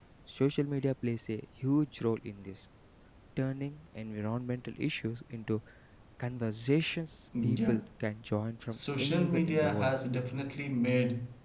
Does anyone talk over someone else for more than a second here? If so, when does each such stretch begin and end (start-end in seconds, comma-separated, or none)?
8.7-9.9